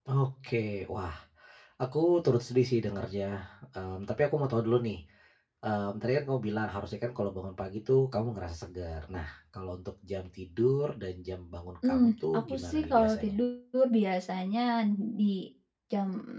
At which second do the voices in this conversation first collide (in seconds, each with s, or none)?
11.8 s